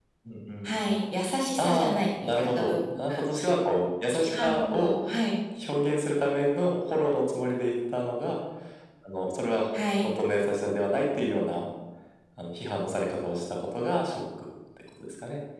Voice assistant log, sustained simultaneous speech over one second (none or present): present